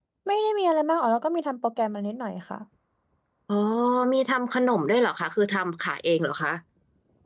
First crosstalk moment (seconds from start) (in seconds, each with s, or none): none